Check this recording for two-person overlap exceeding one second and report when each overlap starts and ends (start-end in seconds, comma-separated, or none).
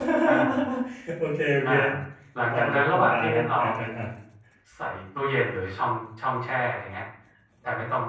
2.5-3.8